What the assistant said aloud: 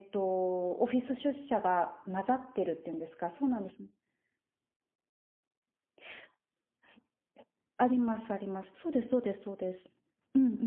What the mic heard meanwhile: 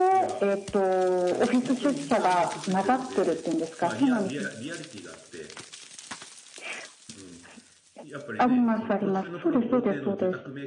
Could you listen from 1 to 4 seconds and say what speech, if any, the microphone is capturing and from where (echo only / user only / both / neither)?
both